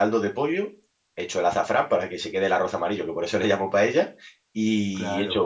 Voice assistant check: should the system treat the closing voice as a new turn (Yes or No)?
No